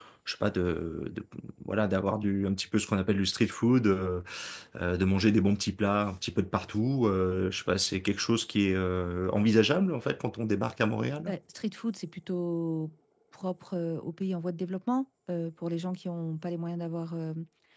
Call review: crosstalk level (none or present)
none